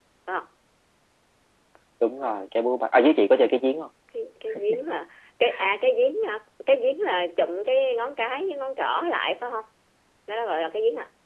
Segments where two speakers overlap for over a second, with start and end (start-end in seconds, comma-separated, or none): none